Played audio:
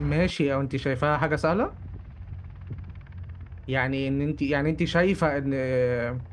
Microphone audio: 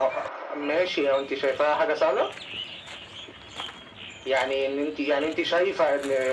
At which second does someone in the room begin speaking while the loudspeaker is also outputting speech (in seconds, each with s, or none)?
none